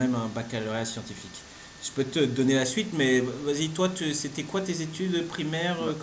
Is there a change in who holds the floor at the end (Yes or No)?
Yes